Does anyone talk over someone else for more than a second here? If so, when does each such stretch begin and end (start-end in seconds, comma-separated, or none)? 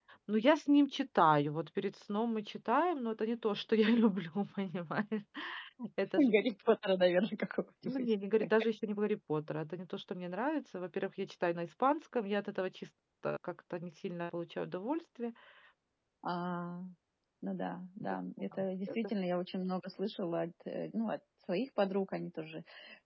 none